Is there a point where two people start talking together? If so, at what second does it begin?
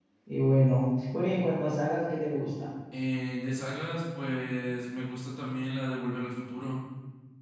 none

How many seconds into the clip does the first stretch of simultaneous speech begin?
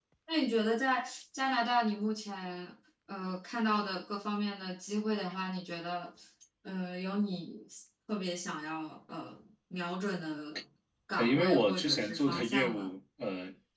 11.2 s

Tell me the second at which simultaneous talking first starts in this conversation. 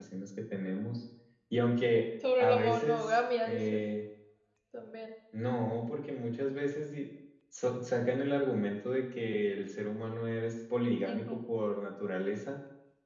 2.4 s

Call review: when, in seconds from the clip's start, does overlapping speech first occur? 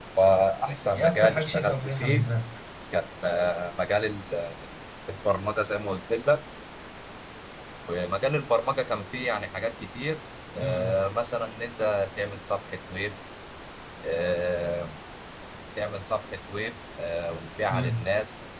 0.9 s

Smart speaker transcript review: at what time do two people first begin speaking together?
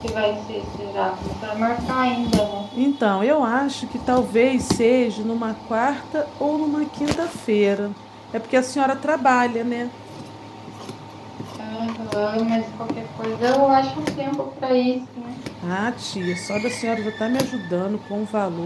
none

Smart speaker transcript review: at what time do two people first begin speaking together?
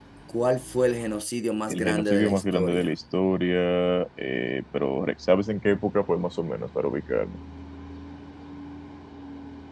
1.7 s

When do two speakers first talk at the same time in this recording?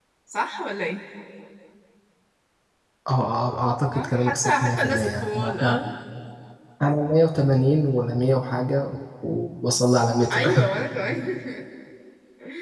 3.9 s

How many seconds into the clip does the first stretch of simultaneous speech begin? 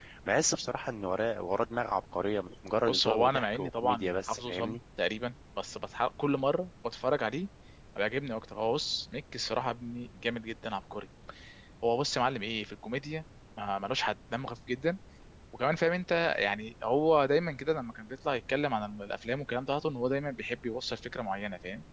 2.9 s

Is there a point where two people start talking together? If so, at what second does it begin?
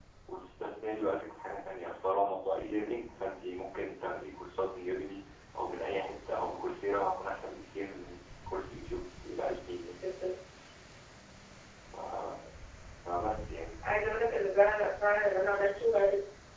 none

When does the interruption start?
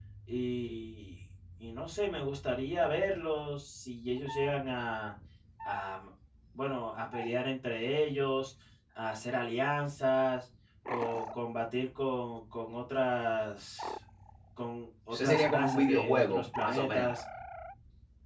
15.1 s

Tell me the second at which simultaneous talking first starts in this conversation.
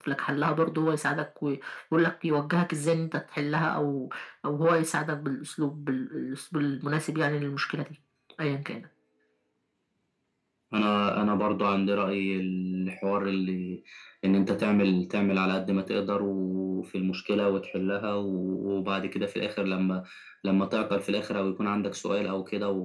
none

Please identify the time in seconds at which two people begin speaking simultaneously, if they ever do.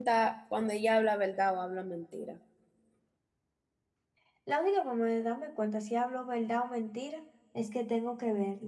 none

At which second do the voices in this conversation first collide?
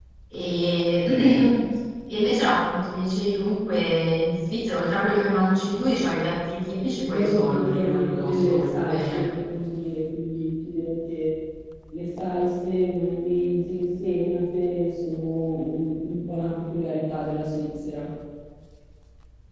7.1 s

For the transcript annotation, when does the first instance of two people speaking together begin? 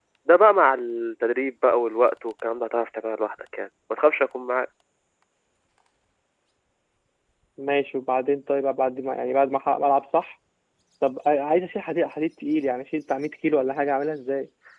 none

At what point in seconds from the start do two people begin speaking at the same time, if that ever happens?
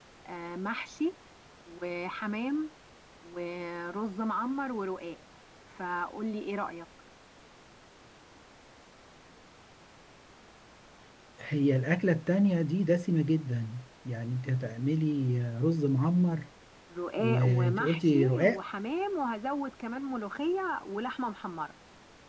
17.2 s

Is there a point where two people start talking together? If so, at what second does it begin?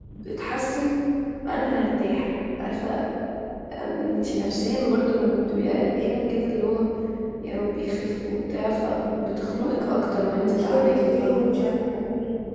9.5 s

